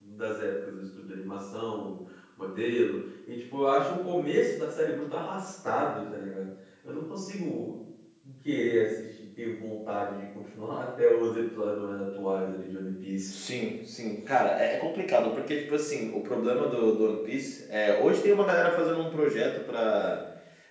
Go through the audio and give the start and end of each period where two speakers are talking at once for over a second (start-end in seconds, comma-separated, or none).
none